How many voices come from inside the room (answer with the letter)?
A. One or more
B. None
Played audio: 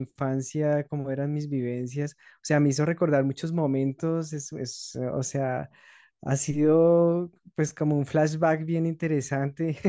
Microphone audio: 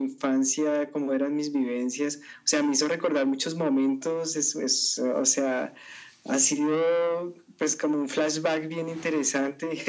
B